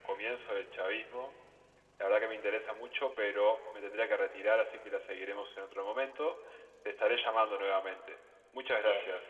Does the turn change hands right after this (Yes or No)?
Yes